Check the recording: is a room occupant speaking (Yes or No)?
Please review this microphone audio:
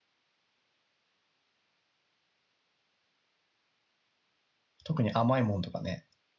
Yes